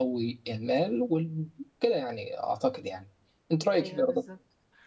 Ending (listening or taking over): taking over